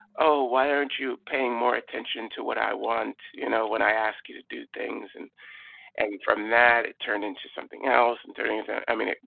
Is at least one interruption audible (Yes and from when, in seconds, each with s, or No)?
No